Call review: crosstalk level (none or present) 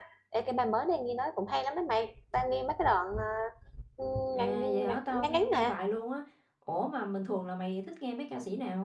present